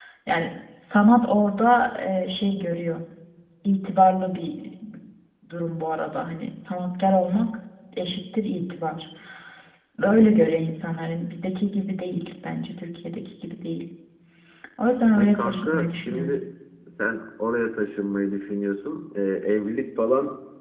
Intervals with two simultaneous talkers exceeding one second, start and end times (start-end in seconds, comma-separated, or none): 15.1-16.4